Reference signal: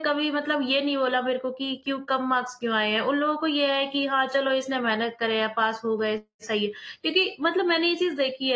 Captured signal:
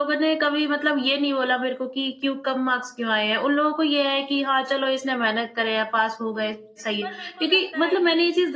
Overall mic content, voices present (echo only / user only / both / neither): both